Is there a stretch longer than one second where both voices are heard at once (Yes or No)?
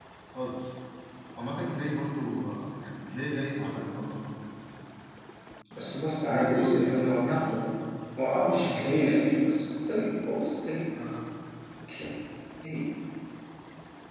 Yes